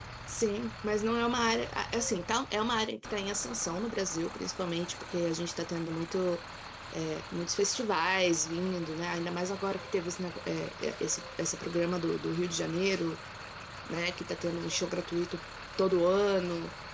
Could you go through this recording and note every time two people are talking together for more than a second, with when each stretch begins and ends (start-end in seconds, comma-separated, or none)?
none